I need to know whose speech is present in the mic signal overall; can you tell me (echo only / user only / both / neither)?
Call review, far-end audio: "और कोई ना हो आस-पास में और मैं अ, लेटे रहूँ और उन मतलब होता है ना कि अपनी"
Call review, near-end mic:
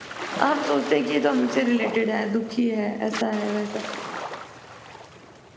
user only